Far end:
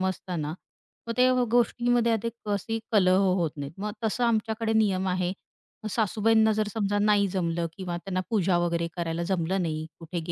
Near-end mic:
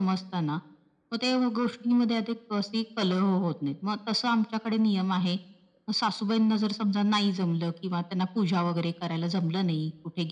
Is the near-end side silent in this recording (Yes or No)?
Yes